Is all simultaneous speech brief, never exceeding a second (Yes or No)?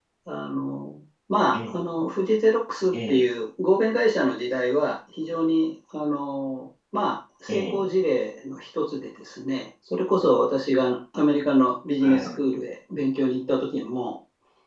Yes